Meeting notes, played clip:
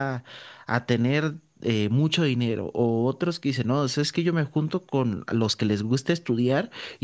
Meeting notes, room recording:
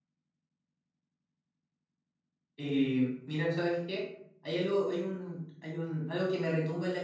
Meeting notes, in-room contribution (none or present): present